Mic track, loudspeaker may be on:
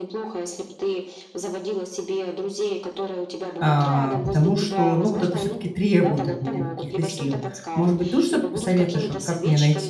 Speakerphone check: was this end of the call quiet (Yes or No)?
No